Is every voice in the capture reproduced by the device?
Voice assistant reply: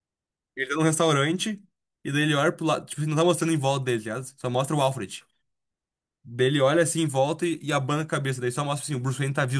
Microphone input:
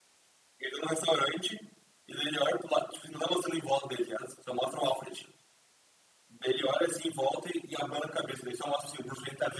Yes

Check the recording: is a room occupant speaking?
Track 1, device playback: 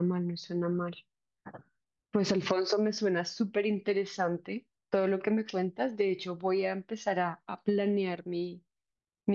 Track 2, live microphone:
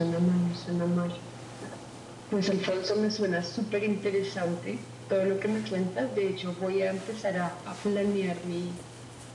No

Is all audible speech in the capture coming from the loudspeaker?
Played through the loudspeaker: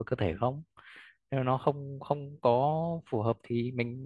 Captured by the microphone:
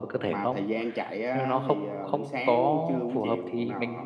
No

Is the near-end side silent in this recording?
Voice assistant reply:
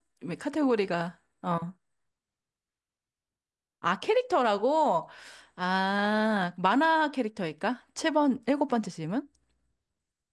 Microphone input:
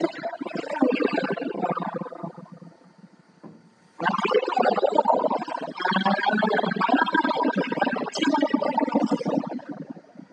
Yes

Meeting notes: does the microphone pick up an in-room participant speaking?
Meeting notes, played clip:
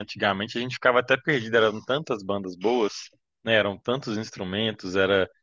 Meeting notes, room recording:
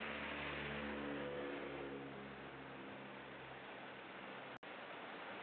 No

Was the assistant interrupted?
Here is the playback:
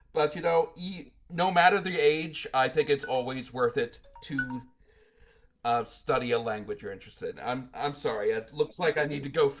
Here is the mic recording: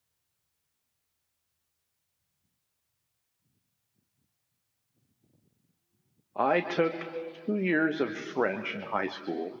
Yes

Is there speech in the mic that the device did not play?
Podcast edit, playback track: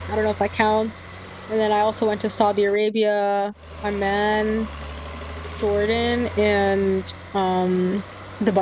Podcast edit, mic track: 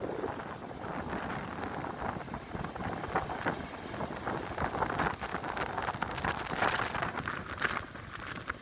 No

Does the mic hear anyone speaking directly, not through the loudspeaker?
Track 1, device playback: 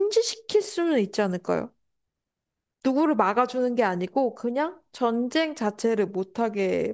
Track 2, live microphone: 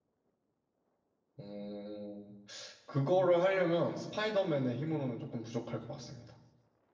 Yes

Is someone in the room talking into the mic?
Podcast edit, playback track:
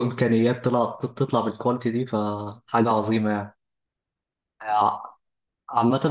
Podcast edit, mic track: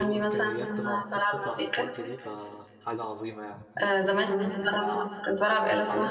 Yes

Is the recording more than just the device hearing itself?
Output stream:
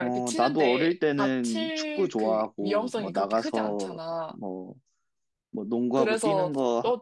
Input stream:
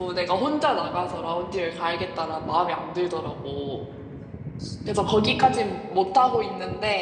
Yes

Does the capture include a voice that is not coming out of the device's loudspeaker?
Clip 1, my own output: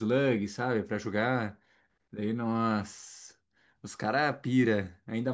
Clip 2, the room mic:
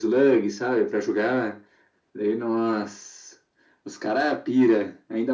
No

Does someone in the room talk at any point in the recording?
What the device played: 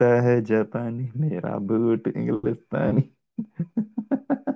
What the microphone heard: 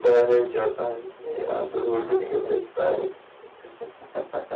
Yes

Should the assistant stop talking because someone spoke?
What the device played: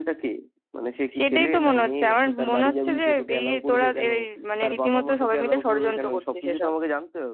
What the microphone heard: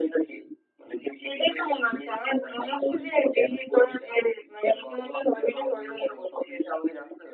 No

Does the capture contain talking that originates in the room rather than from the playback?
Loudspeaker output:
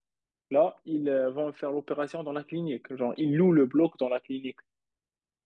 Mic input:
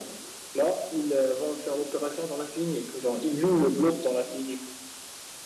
No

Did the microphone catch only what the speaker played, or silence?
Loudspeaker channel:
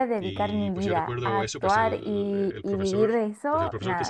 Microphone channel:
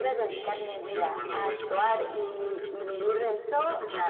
Yes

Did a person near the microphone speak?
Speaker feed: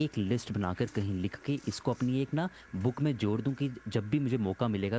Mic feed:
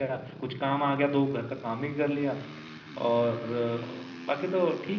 Yes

